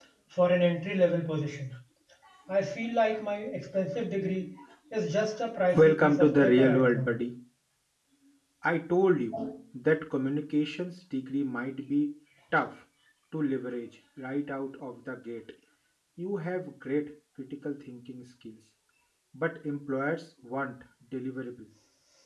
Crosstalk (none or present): present